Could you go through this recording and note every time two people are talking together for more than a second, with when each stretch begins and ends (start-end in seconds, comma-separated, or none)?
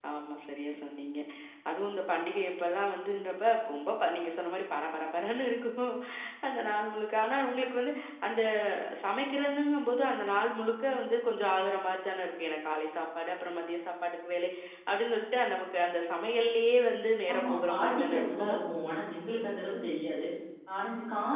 17.3-18.6